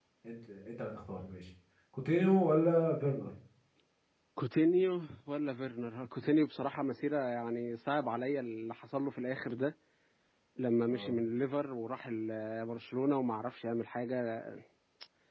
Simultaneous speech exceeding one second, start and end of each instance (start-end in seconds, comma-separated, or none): none